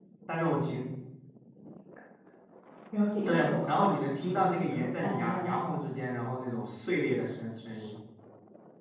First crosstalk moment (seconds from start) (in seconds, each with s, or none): 3.3 s